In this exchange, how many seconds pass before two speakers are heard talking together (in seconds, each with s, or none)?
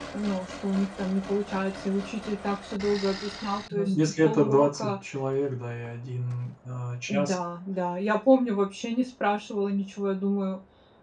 3.7 s